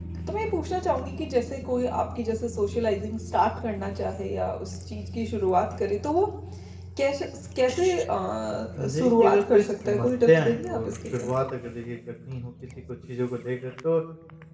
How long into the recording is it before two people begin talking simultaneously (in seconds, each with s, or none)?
8.8 s